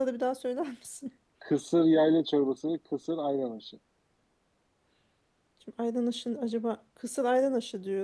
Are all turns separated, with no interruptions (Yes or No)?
Yes